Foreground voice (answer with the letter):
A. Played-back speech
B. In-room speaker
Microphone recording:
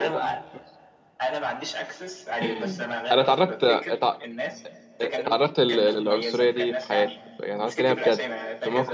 B